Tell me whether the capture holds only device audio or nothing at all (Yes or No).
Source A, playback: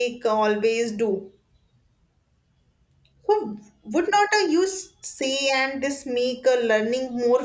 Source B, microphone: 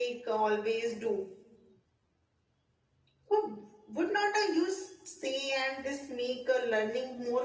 Yes